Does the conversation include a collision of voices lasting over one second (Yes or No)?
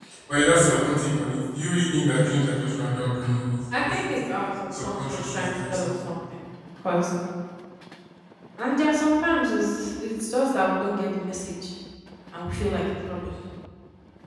Yes